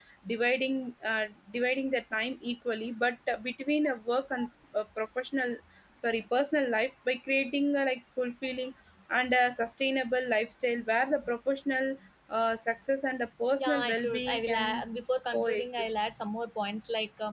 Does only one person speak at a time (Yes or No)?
No